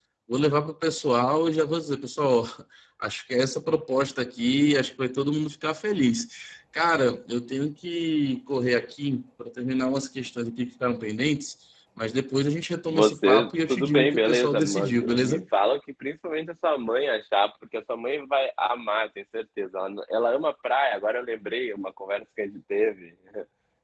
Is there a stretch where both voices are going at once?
Yes, from 12.8 s

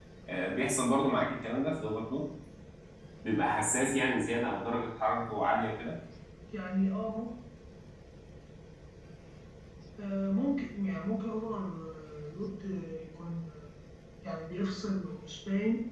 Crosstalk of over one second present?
No

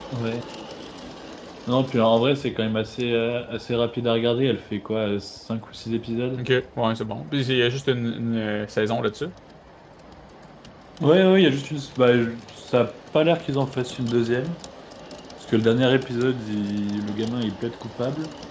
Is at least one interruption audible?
No

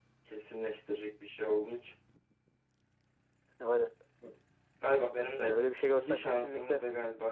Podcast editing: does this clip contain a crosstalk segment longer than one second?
Yes, from 5.4 s

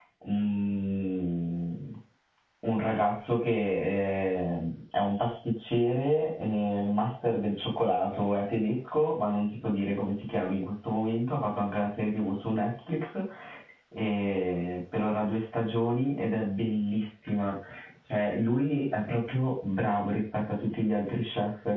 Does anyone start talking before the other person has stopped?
No

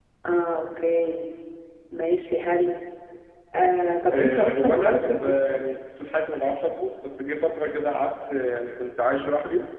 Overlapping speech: Yes, from 4.1 s

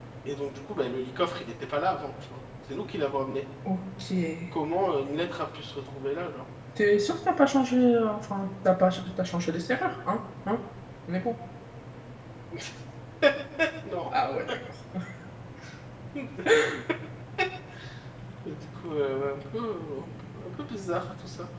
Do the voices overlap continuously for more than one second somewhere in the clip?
No

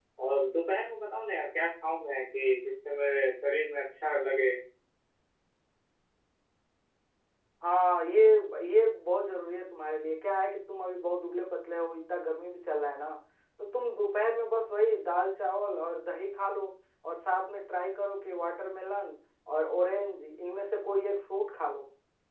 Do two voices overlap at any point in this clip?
No

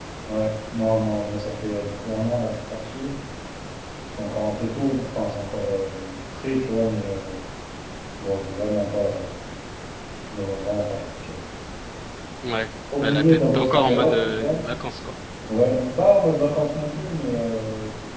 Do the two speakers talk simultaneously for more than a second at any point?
Yes, from 13.0 s

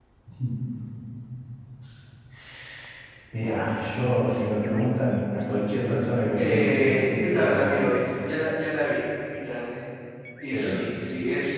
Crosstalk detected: Yes, from 6.4 s

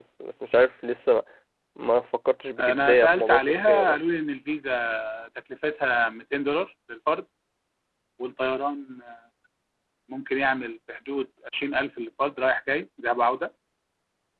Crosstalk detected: Yes, from 2.6 s

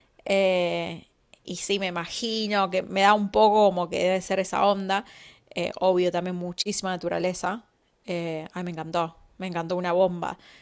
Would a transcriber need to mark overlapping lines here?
No

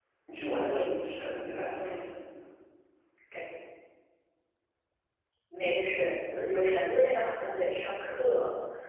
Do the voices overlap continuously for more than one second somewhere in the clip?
No

